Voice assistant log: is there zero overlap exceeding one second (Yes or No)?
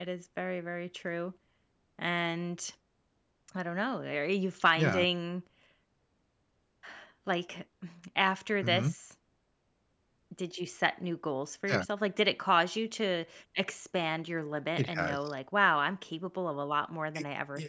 Yes